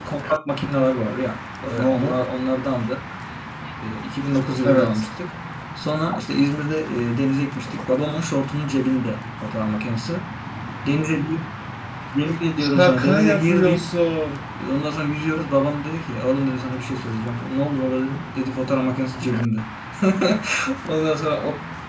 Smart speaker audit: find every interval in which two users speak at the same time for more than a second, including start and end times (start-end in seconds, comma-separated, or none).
12.6-13.9